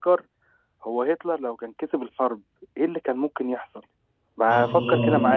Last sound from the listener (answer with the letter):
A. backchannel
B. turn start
B